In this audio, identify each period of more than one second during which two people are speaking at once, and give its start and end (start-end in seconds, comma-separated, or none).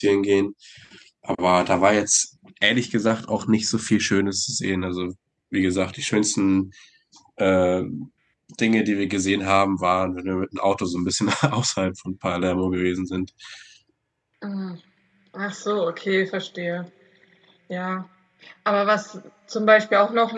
none